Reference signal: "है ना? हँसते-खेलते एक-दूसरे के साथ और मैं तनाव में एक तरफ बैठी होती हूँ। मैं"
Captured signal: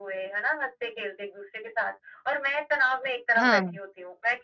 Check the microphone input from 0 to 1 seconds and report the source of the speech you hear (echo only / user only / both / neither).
echo only